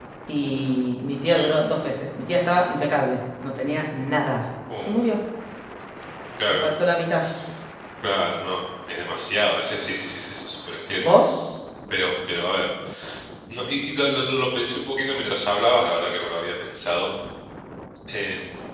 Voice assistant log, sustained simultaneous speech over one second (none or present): none